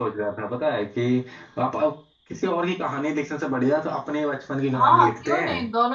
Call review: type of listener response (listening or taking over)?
taking over